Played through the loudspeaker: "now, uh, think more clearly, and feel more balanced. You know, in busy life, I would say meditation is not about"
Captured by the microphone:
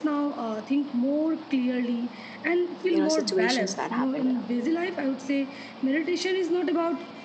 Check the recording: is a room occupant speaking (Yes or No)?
Yes